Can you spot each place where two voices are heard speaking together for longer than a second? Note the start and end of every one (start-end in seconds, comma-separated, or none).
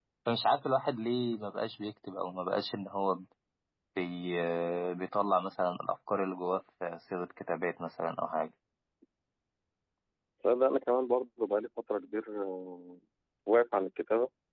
none